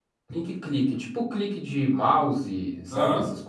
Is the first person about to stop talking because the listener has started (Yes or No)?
Yes